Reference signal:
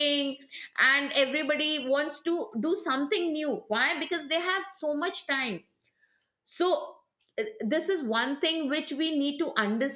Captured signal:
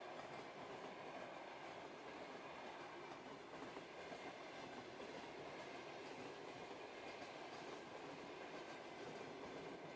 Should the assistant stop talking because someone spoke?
No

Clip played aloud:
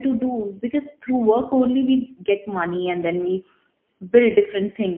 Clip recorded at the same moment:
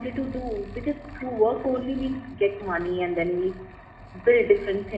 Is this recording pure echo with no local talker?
Yes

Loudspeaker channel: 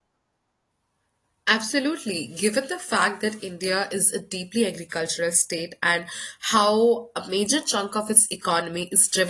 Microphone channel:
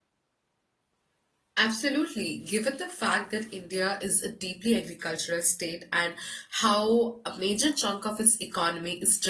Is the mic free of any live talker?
Yes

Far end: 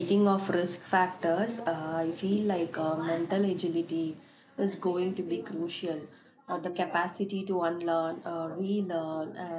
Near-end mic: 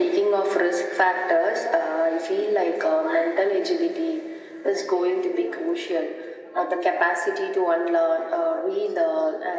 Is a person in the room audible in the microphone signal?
No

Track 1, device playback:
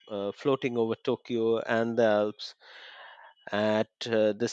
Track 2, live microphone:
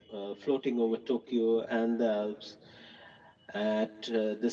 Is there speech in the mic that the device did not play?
No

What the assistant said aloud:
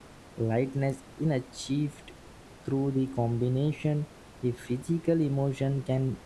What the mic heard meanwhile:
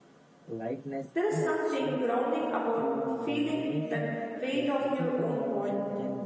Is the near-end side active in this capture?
Yes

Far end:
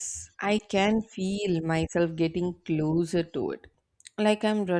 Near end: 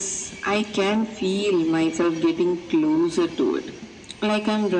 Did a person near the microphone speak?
No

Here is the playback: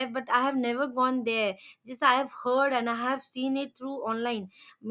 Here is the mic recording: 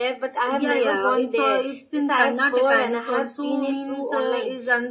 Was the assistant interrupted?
Yes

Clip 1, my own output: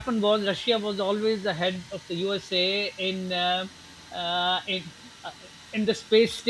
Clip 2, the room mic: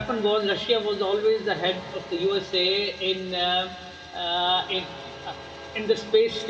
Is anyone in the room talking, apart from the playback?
No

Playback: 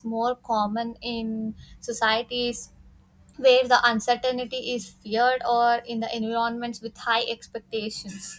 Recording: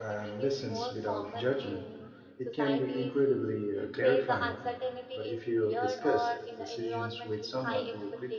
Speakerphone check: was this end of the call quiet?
No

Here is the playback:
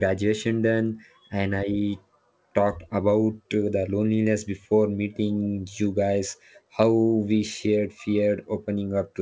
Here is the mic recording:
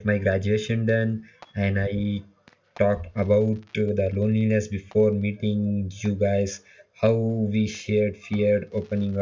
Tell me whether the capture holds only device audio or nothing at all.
Yes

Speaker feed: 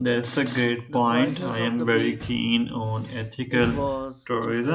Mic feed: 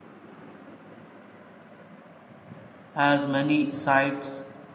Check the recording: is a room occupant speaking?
Yes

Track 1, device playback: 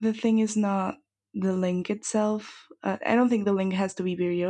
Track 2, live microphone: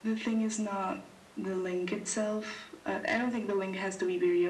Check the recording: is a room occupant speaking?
No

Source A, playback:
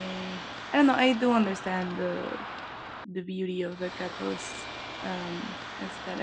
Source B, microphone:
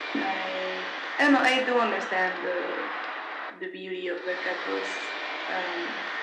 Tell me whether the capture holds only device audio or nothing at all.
Yes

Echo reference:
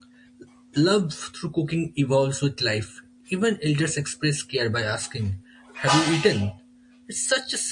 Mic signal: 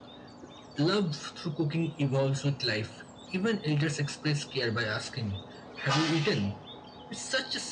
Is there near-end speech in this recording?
No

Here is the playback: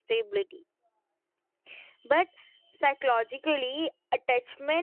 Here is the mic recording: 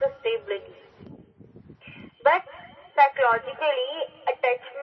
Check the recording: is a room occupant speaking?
No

